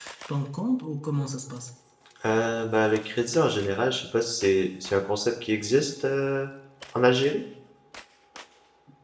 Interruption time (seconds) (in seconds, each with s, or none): none